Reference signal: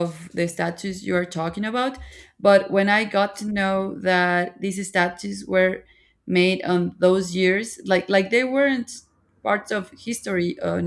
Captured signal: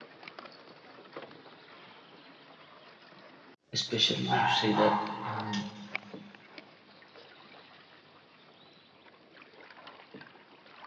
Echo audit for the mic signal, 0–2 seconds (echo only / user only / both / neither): neither